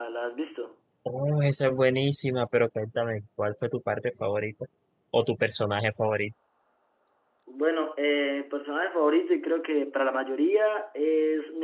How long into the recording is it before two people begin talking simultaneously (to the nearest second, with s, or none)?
none